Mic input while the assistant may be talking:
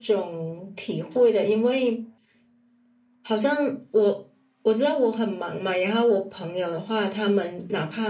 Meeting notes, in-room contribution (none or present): none